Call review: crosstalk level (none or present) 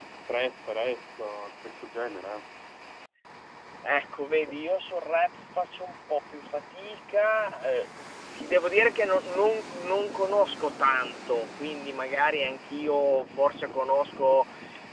none